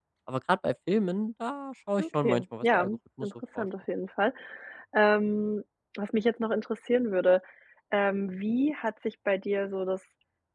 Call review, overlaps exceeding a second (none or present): present